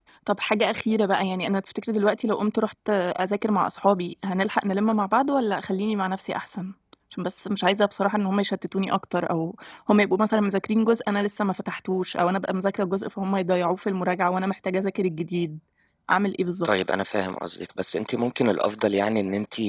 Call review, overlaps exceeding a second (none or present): none